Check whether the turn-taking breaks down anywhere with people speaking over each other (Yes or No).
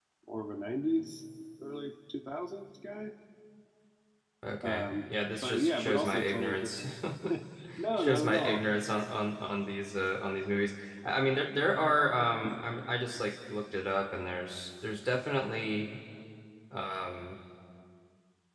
Yes